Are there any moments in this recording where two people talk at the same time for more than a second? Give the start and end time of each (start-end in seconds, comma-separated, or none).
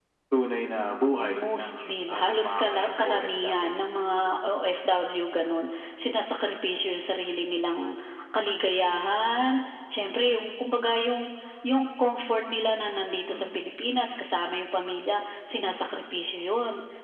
1.2-3.8